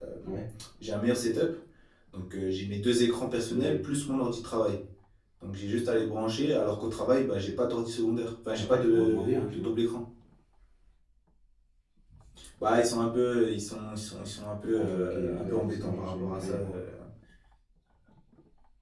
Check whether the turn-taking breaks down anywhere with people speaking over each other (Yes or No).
Yes